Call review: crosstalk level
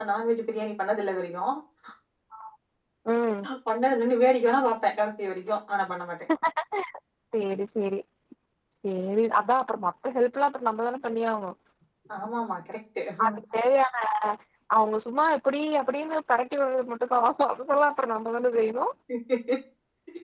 none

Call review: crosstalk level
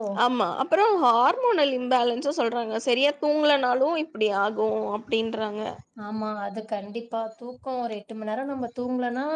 none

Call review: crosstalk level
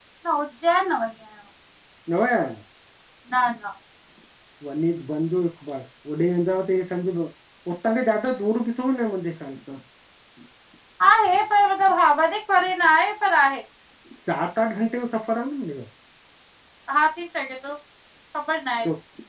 none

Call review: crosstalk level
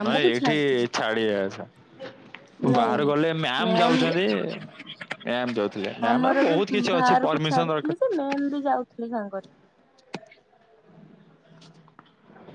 present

